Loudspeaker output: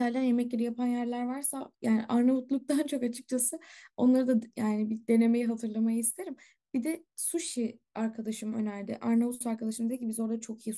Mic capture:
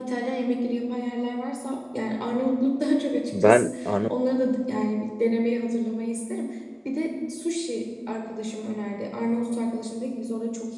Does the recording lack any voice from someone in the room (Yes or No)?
No